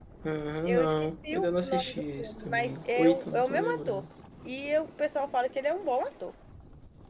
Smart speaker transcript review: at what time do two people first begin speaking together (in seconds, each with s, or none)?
0.7 s